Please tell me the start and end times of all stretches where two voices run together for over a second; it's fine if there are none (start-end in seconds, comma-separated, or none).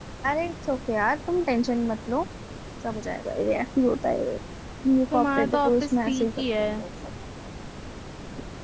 5.1-6.8